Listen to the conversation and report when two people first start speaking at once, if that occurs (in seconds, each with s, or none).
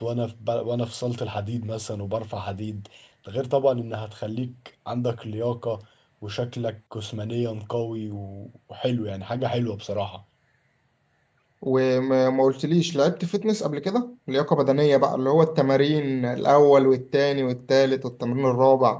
none